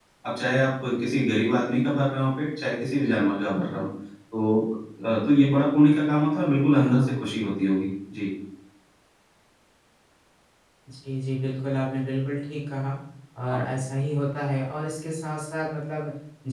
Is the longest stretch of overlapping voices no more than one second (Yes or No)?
Yes